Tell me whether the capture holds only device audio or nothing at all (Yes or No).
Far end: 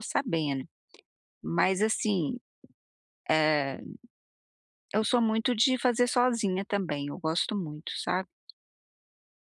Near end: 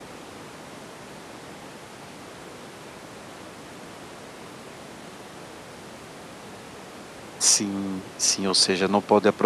No